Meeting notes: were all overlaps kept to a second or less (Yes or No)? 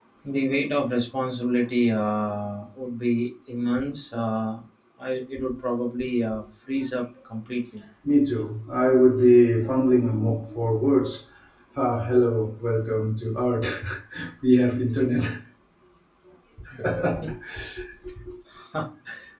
Yes